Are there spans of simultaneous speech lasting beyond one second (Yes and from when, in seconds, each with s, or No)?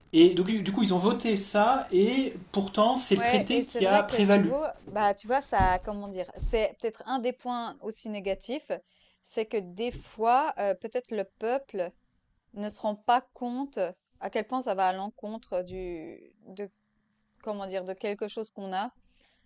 Yes, from 3.2 s